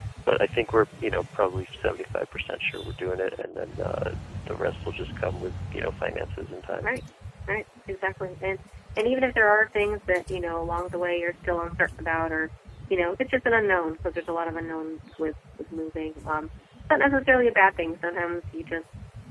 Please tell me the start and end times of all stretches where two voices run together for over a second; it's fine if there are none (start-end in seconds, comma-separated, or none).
none